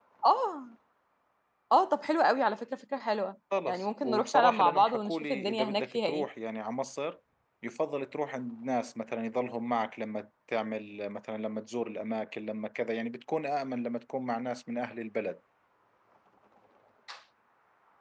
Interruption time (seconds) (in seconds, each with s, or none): 3.5 s